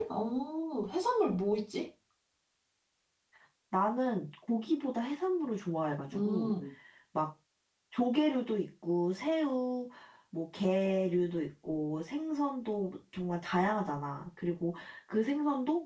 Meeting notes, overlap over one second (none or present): none